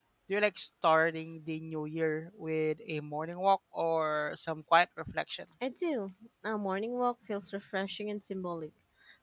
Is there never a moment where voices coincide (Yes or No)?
Yes